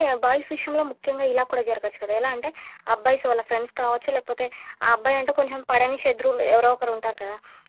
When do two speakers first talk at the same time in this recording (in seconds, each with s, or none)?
none